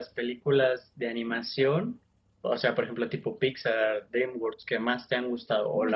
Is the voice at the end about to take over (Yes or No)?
Yes